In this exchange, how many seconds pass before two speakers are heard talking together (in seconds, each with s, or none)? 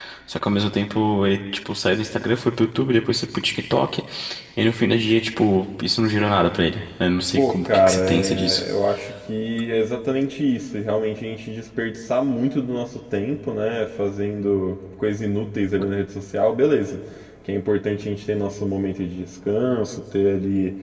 7.3 s